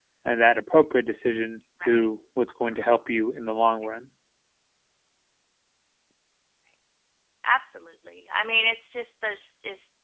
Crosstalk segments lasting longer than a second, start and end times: none

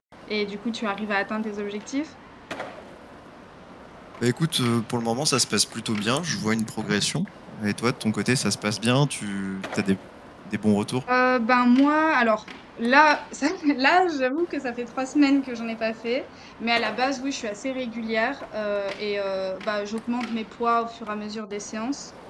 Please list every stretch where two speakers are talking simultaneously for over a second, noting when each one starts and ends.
none

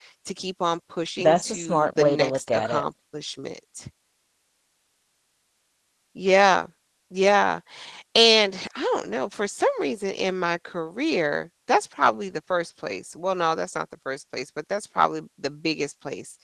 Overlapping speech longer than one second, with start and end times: 1.2-2.8

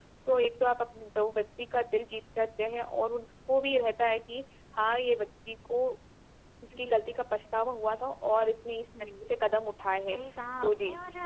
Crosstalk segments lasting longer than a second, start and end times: none

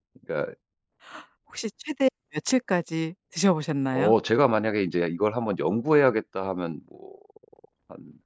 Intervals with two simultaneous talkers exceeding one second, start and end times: none

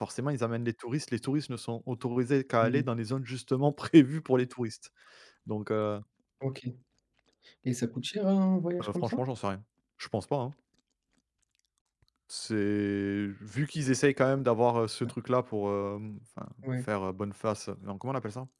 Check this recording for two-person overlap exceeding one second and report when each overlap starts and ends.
none

